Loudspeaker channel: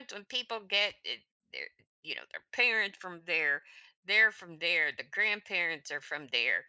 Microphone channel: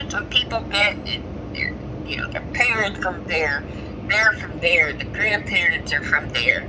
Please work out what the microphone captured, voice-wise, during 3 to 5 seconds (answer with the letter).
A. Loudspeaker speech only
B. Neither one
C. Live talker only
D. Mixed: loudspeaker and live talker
A